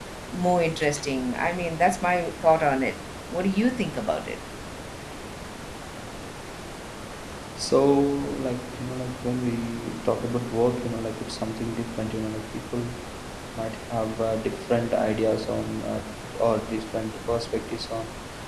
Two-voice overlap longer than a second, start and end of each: none

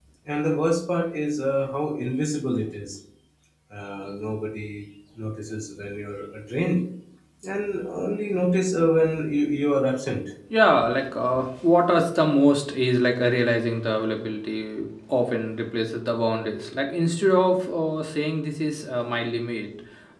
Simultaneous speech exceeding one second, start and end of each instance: none

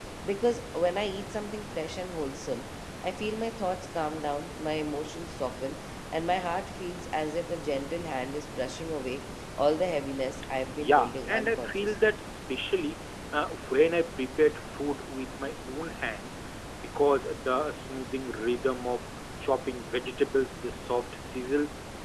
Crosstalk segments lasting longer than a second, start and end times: 10.8-12.1

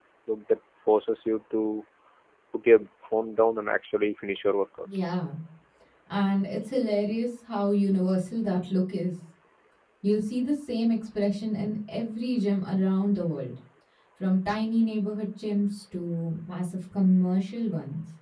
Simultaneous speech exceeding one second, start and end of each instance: none

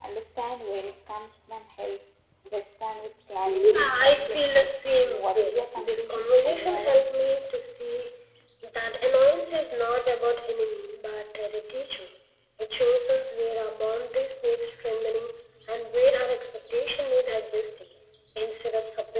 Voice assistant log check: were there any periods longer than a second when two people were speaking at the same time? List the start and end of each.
3.4-7.0

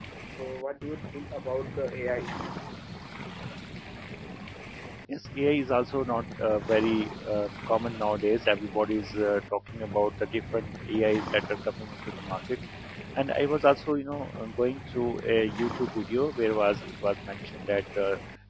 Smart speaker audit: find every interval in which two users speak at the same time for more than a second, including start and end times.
none

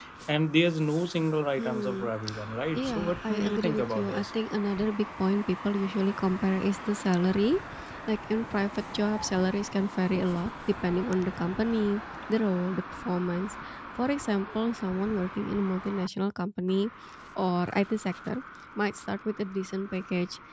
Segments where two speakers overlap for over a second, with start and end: 2.7-4.2

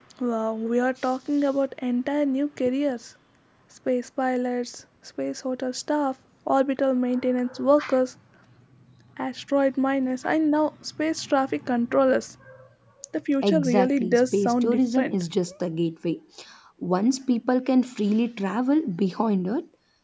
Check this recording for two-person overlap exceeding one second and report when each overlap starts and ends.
13.4-15.2

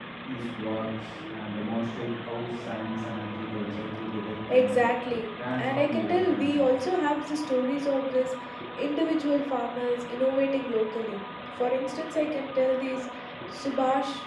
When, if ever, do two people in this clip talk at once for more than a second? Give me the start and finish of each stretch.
5.5-6.7

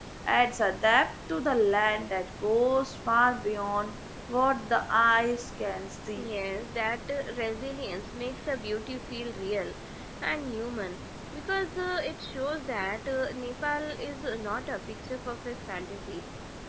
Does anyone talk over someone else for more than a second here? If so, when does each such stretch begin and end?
none

